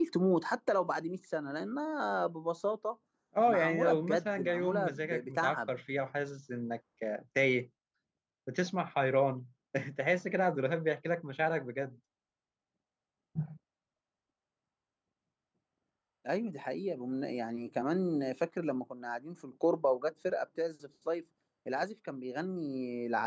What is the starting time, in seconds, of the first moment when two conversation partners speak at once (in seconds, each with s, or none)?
3.5 s